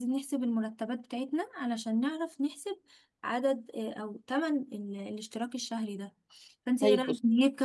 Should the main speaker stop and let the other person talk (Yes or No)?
No